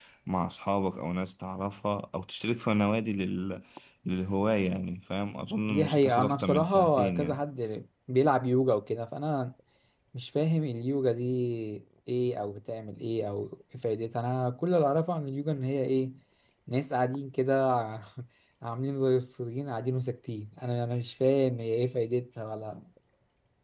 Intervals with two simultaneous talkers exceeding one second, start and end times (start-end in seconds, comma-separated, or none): 5.7-7.4